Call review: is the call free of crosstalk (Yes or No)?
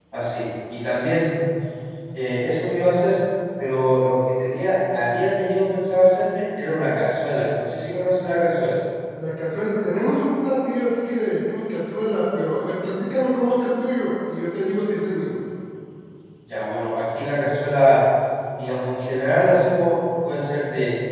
Yes